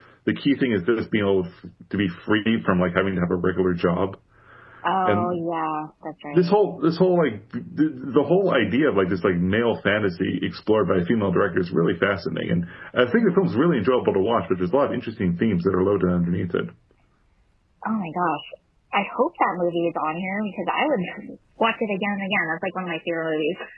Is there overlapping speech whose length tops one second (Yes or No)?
No